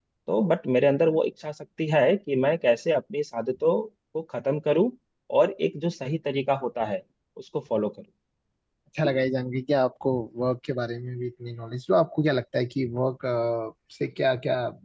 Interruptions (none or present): none